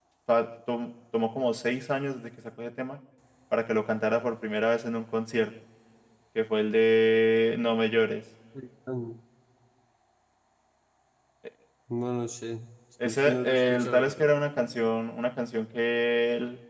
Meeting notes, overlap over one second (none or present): present